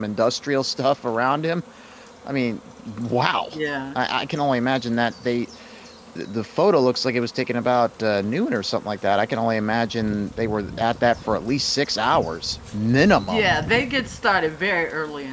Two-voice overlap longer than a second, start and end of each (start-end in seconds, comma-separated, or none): none